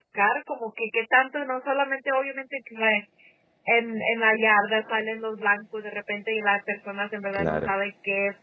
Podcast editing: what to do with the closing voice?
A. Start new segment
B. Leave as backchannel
B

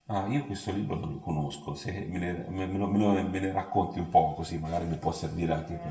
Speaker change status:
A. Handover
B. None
A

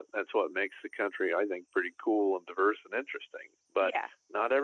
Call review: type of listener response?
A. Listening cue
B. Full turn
A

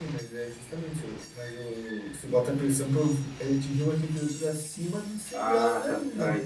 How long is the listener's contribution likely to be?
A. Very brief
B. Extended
B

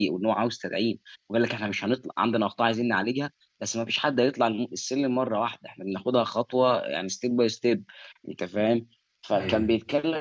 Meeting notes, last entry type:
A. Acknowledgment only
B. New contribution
A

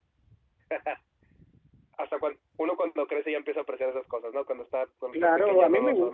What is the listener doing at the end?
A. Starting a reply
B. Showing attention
A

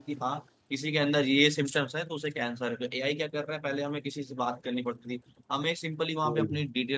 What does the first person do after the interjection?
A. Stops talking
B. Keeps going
B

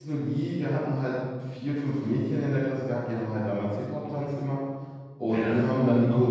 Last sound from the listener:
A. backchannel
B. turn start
A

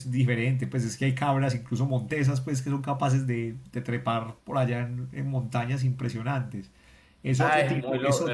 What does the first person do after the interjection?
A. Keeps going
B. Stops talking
B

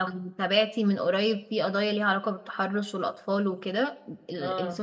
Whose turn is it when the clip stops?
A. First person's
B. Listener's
A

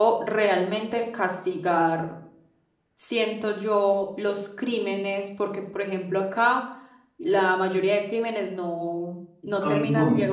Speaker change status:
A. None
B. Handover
A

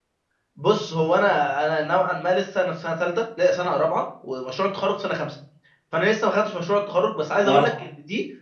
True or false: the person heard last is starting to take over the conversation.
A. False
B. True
A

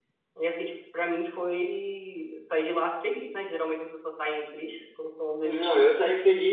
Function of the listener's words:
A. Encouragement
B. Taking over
B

